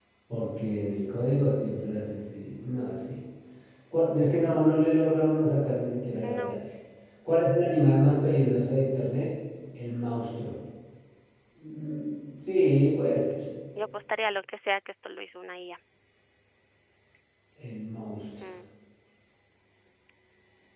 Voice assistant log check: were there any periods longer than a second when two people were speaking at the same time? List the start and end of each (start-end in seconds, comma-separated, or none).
none